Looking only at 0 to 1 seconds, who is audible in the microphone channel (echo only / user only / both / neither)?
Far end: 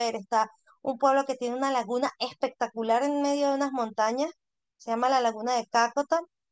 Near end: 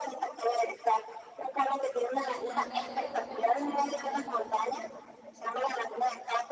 echo only